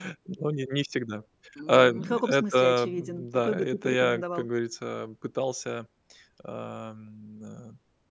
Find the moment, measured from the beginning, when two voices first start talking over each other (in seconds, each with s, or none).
1.7 s